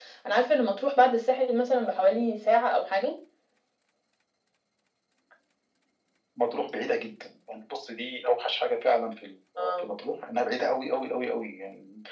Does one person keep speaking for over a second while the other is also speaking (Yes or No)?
No